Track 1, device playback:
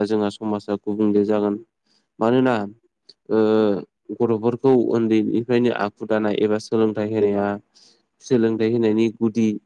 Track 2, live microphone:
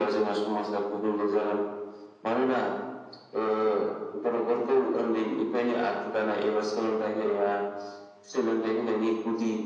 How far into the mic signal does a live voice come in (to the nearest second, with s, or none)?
none